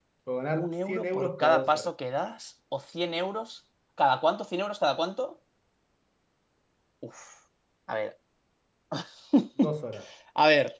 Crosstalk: present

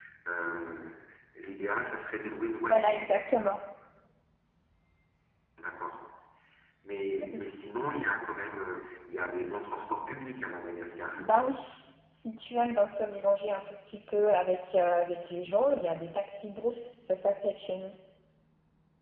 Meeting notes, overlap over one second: none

